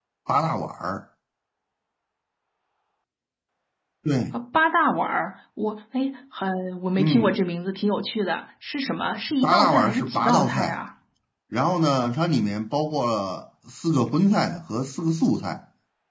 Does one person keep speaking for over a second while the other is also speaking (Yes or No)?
Yes